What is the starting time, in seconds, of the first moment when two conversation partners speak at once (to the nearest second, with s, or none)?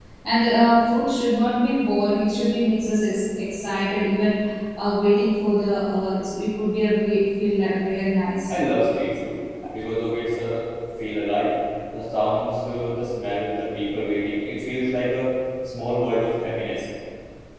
none